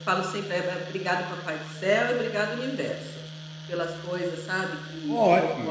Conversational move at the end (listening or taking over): taking over